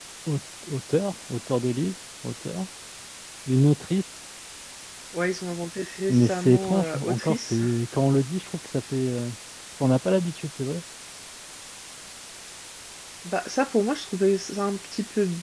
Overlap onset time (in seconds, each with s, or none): 6.1 s